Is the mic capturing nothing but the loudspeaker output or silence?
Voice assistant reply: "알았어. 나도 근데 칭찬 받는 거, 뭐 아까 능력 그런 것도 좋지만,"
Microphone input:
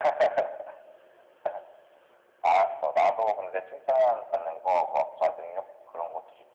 Yes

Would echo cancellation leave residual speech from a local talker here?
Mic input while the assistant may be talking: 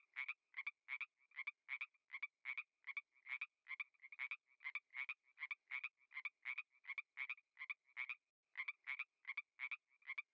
No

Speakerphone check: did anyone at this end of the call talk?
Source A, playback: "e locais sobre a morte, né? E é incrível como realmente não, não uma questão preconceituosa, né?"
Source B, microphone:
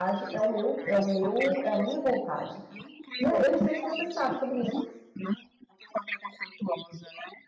Yes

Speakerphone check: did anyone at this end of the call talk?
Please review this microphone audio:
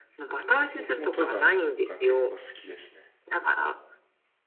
Yes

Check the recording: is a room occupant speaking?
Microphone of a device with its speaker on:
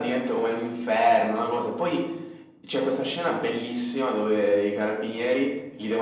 No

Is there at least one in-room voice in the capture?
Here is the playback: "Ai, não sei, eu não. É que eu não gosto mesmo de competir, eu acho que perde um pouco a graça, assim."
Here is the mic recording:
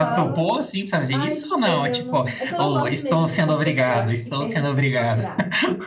Yes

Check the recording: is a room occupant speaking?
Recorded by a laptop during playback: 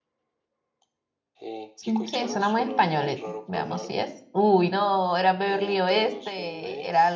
Yes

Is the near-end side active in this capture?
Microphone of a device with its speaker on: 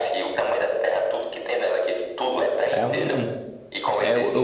Yes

